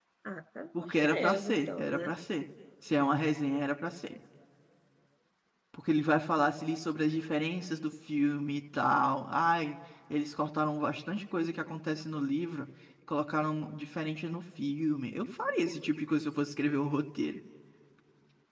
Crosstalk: present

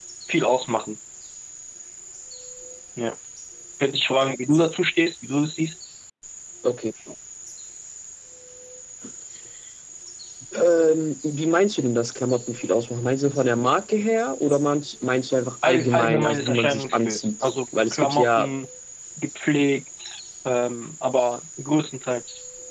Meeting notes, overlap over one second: present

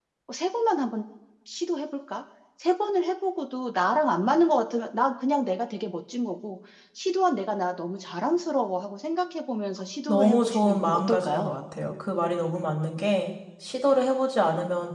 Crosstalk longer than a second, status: present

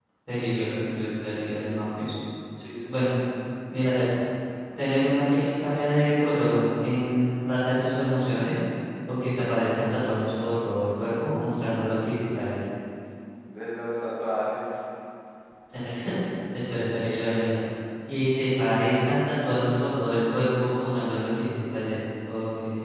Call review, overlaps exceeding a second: none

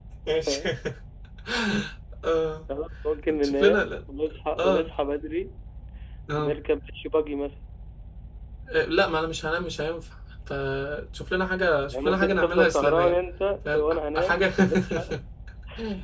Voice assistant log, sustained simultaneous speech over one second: present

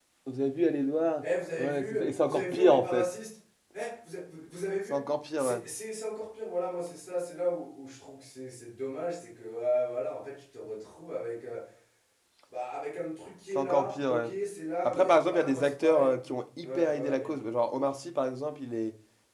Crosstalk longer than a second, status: present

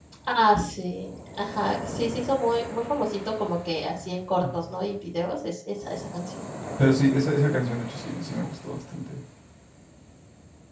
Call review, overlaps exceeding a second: none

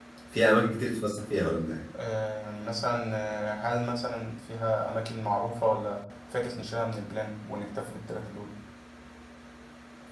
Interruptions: none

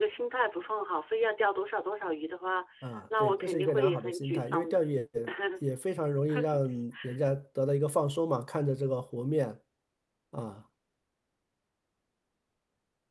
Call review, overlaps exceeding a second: present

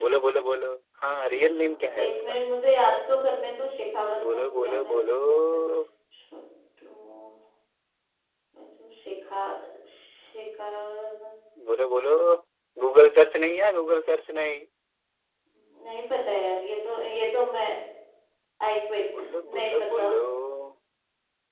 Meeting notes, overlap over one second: present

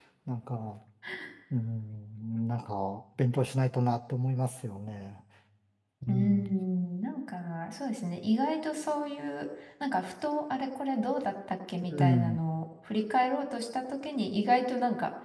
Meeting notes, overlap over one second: none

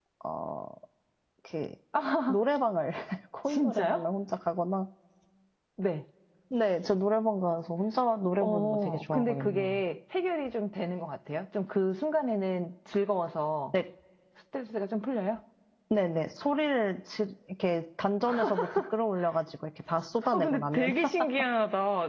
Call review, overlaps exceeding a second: present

